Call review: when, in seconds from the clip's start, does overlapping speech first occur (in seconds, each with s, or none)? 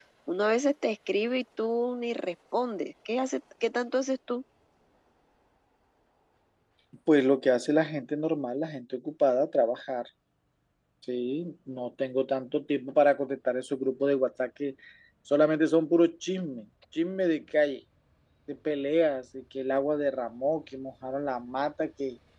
none